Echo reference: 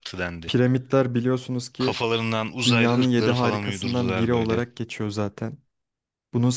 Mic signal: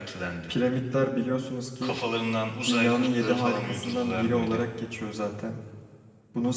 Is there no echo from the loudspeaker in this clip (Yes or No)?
No